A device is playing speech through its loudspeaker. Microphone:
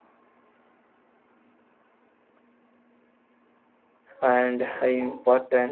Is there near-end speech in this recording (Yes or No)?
Yes